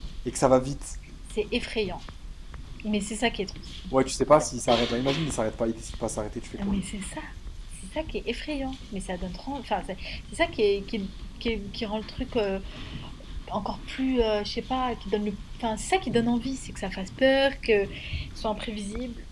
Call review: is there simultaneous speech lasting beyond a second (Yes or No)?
No